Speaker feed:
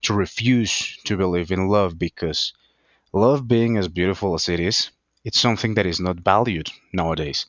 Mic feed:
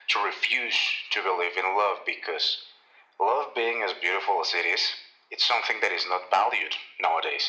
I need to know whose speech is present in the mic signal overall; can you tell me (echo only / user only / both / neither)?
echo only